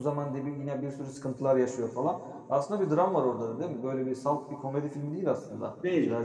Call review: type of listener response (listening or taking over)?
taking over